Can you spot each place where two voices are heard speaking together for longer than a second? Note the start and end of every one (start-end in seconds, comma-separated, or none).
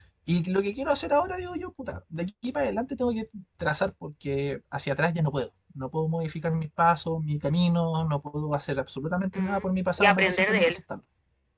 9.3-10.8